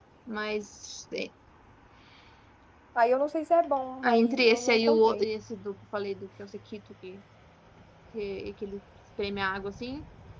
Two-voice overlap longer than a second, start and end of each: 4.0-5.2

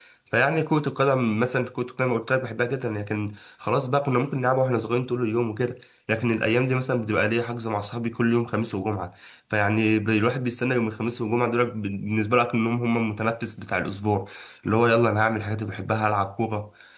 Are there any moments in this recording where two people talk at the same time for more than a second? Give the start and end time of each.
none

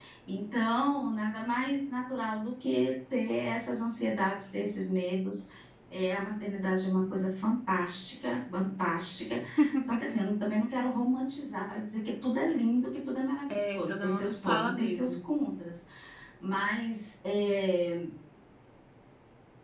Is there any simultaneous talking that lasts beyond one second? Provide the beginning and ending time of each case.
13.5-15.2

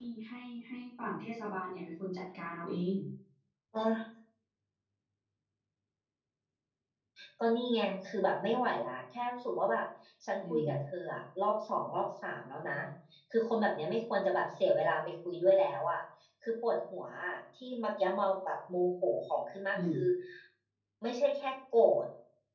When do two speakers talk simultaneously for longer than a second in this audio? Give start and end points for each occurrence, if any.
none

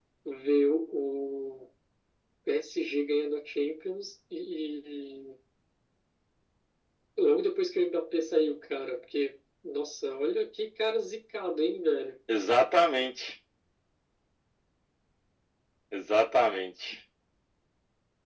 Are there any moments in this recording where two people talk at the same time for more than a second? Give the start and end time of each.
none

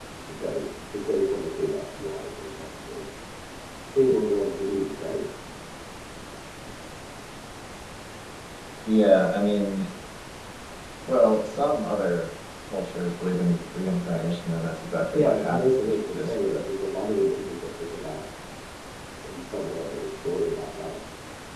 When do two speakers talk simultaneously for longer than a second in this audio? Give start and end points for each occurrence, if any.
15.2-16.6

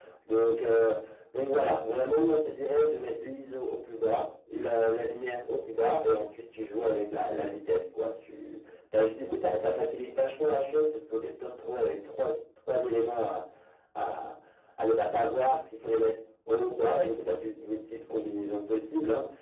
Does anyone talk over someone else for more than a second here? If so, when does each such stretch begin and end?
none

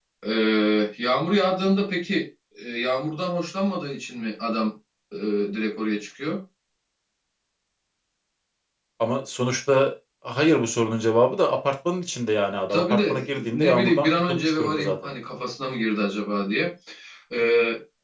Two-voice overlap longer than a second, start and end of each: 12.7-14.9

